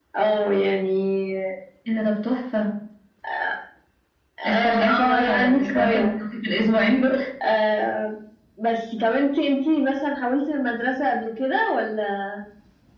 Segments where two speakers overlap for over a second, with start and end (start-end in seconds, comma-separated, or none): 4.4-6.1